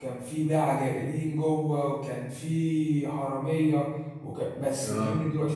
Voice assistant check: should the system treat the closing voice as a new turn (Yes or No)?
No